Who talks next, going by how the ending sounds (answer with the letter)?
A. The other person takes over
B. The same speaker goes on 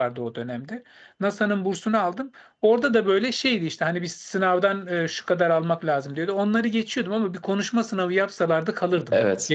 A